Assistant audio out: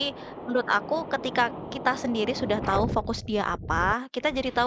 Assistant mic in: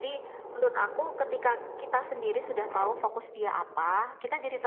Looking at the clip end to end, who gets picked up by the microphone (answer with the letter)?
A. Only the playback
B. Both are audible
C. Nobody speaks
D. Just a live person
A